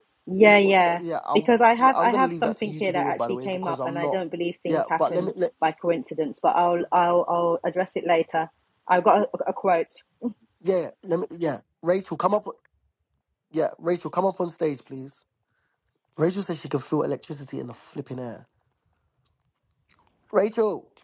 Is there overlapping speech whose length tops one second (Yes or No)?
Yes